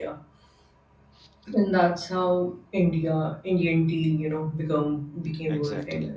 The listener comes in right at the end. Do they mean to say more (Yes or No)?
Yes